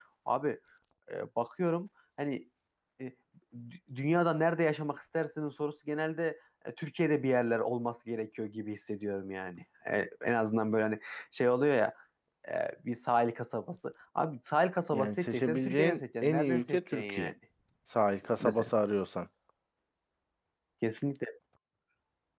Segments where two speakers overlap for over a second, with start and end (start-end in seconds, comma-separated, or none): 14.9-17.3